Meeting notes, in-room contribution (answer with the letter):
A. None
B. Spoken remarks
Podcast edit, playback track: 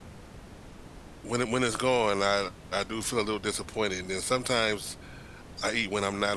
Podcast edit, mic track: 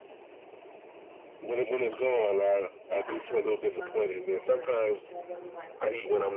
B